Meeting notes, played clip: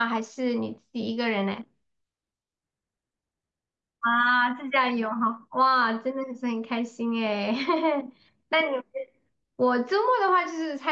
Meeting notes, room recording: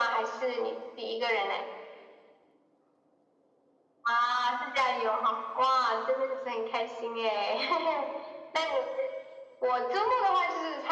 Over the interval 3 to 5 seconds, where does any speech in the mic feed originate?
echo only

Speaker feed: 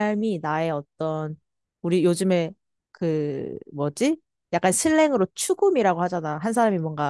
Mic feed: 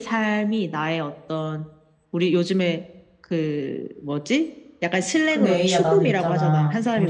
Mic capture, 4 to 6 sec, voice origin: both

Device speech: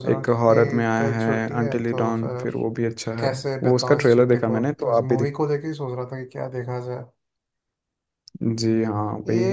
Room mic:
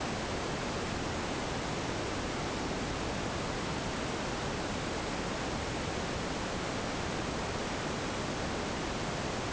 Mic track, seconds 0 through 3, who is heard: neither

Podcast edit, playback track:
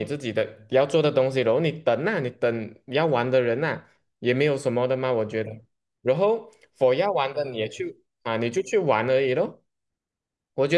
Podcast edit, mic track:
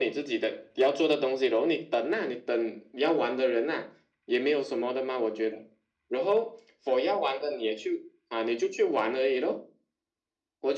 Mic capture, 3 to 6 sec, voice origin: echo only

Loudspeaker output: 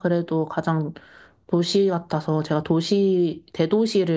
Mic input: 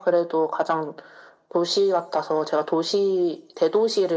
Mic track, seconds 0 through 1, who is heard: echo only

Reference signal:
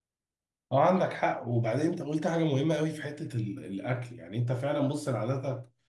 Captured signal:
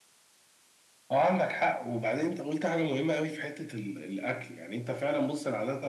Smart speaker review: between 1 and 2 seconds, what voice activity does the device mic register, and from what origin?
echo only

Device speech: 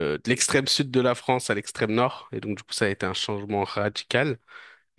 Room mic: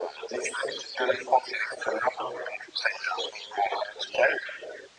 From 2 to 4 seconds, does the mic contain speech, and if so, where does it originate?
echo only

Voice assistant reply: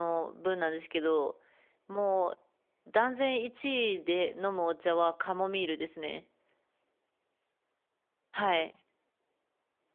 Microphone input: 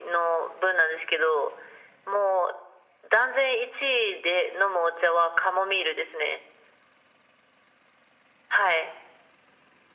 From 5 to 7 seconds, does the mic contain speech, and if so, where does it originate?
echo only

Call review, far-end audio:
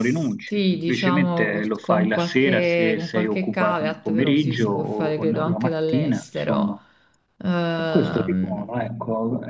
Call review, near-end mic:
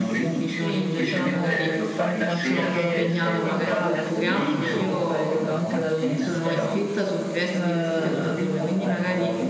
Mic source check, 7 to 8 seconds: both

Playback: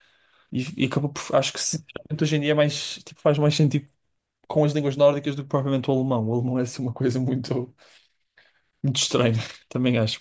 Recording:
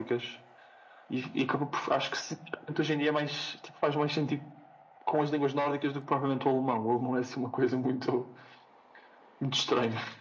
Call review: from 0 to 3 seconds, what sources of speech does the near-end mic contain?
echo only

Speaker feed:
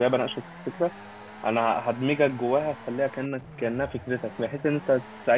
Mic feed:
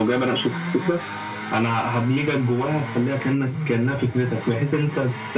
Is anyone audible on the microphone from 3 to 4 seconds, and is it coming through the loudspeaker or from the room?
echo only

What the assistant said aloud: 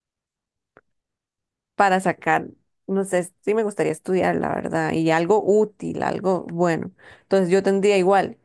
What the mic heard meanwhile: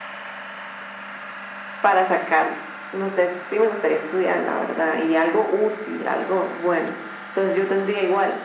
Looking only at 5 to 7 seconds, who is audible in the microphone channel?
echo only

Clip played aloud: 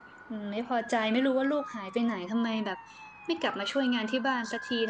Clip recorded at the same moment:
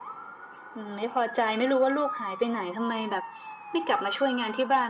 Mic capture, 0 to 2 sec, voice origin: echo only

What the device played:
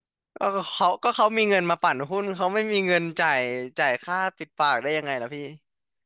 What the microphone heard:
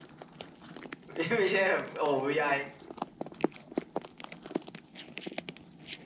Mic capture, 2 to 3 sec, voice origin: user only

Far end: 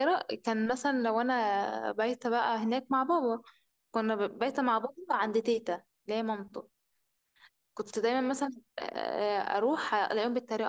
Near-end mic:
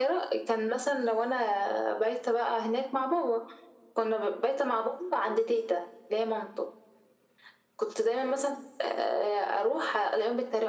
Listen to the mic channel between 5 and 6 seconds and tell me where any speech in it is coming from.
echo only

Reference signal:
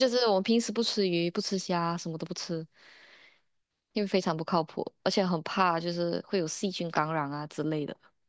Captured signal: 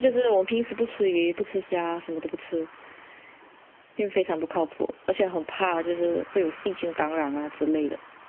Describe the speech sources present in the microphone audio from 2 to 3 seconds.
echo only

